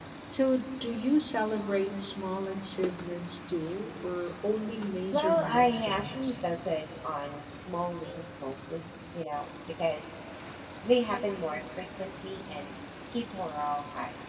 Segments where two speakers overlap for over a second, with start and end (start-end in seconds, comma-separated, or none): 5.1-6.3